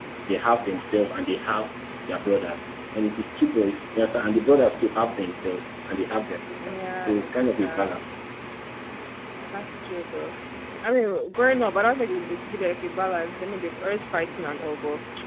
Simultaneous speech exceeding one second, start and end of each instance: 6.7-7.9

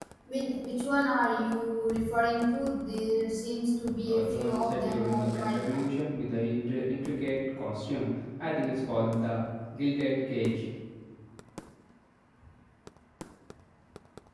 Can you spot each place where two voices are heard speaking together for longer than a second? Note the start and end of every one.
4.0-5.9

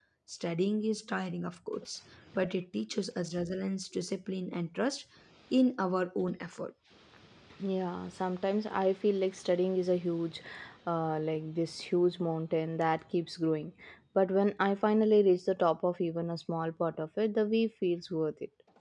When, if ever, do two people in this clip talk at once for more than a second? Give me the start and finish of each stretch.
none

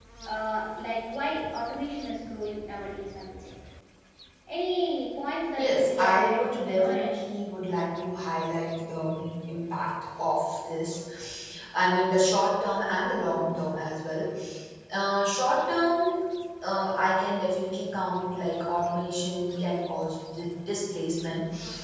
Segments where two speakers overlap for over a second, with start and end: 5.6-7.2

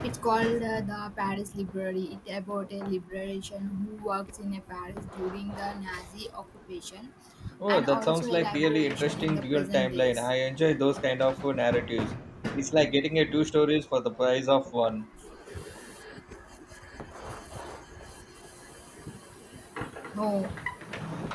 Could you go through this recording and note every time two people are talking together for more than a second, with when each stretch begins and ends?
7.7-10.3

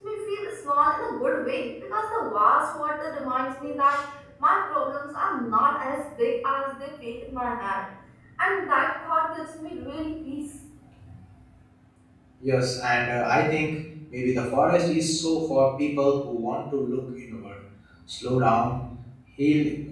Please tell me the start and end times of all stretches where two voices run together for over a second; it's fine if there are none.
none

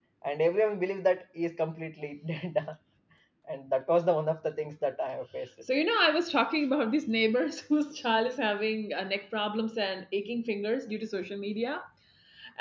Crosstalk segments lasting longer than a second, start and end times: none

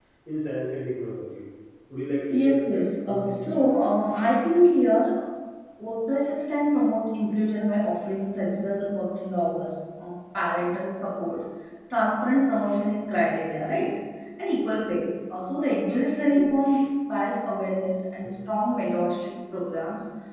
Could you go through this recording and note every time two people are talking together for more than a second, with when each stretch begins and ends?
2.3-3.7

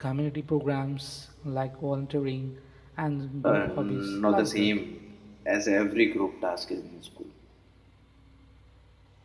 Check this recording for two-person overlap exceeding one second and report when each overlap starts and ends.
3.4-4.7

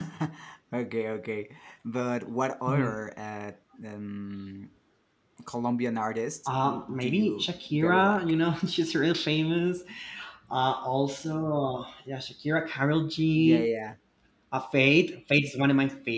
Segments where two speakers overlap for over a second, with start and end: 6.5-8.2

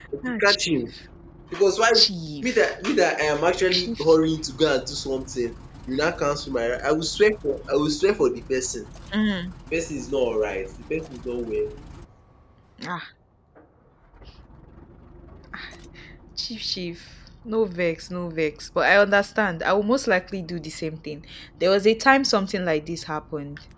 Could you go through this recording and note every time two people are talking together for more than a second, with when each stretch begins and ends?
none

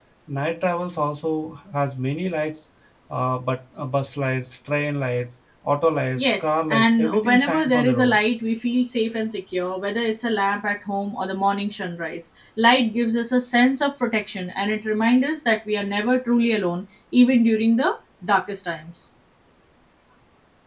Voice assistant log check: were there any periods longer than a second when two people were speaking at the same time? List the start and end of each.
6.2-8.2

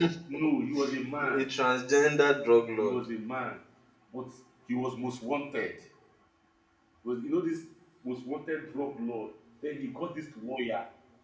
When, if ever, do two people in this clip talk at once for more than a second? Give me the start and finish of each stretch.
none

